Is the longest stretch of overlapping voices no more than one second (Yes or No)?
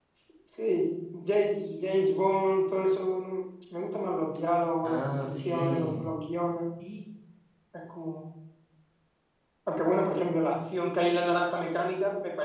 No